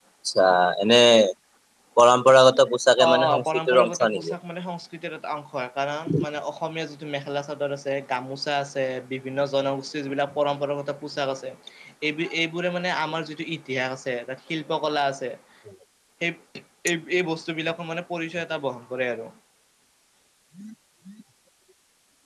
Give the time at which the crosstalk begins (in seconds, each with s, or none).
3.0 s